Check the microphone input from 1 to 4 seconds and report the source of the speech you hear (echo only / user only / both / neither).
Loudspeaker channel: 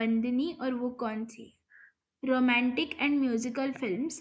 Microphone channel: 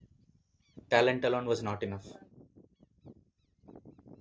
user only